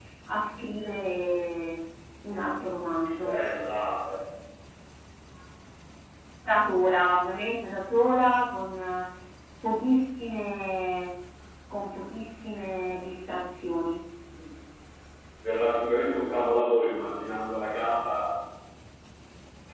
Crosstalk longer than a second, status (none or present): none